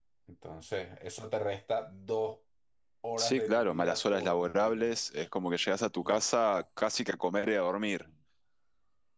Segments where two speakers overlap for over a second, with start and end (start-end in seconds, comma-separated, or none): 3.2-4.9